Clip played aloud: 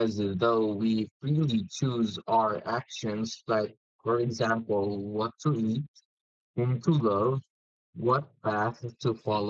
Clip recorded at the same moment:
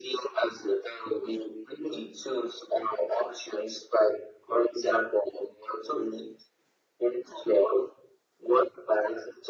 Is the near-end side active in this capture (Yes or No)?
No